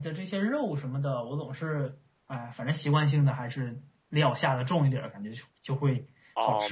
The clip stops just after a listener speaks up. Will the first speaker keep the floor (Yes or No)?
No